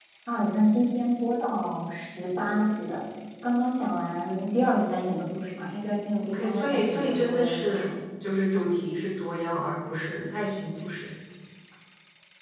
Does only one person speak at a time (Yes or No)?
No